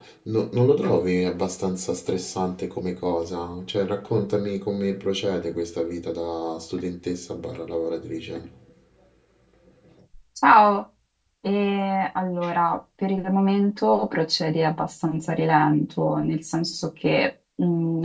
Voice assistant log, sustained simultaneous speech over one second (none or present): none